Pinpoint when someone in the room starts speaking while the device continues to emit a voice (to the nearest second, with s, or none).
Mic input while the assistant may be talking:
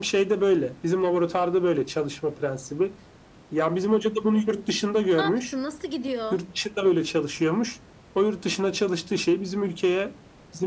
5 s